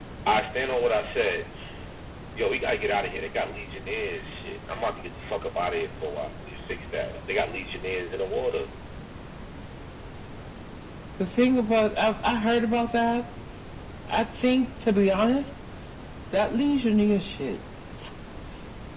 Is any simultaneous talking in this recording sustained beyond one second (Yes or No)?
No